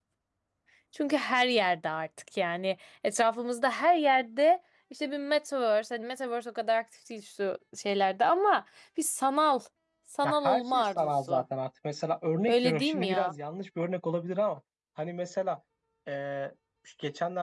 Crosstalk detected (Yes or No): Yes